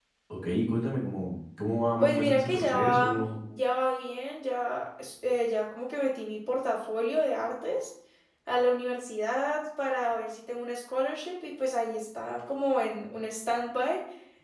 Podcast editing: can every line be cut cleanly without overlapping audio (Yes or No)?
No